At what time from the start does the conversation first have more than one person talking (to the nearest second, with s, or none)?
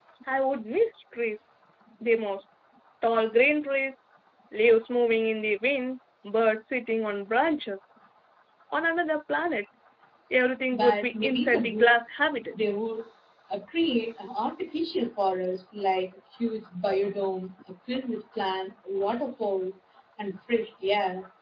11 s